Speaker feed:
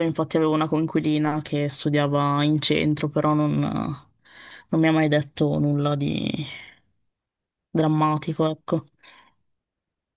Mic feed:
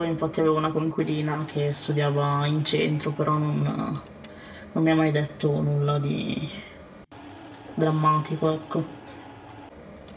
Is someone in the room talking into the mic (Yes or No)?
No